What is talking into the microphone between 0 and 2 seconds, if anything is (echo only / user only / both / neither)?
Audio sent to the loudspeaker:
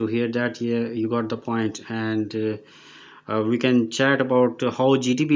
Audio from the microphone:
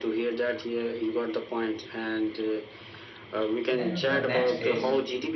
echo only